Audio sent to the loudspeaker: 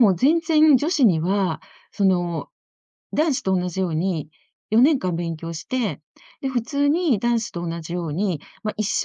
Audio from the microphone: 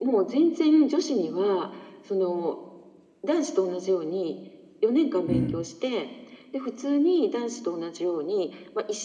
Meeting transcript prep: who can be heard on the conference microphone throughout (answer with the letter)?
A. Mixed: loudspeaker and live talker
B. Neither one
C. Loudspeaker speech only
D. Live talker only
A